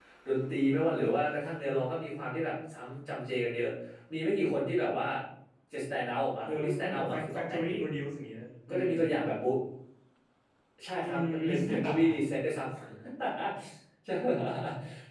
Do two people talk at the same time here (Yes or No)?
Yes